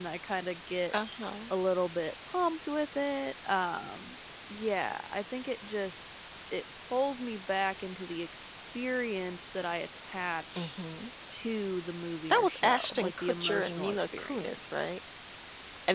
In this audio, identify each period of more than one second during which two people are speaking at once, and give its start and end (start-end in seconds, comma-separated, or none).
12.3-14.8